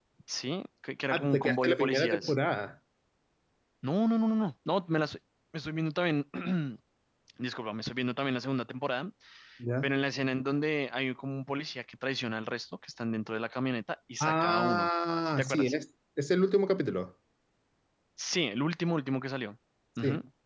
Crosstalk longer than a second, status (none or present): present